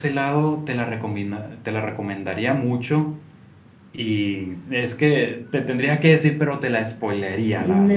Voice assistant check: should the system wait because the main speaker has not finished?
No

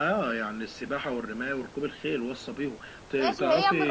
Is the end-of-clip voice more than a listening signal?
Yes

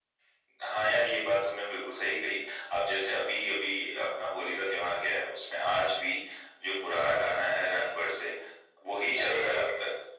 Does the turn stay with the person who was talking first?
Yes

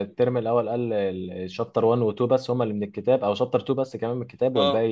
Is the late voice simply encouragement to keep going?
No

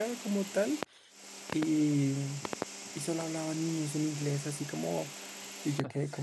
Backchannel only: Yes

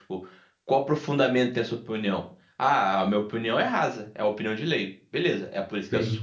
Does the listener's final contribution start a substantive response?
No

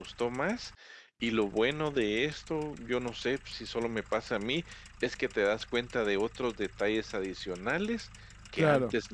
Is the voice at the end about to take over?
No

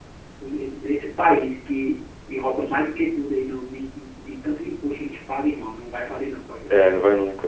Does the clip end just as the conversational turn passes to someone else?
Yes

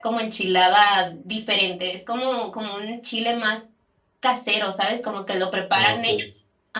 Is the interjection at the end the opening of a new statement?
No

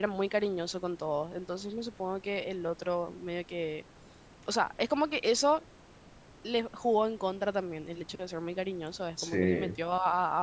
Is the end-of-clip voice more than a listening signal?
No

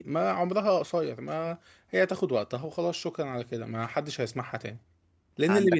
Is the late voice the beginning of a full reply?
No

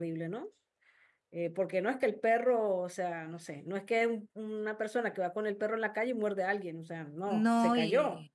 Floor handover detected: Yes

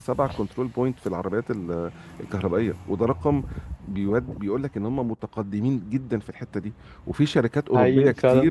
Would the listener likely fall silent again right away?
Yes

